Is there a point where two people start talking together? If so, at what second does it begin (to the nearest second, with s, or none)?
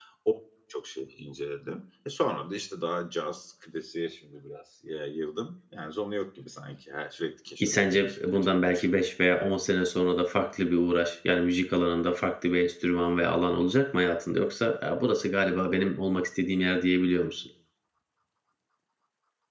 8 s